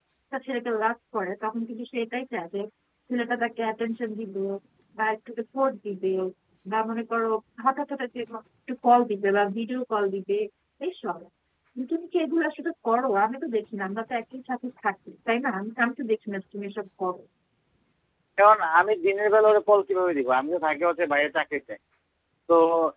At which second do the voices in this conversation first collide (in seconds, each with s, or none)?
none